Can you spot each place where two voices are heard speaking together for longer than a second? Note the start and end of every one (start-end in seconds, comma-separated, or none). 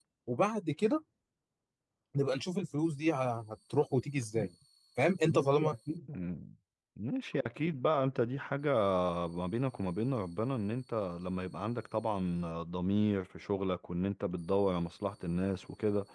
none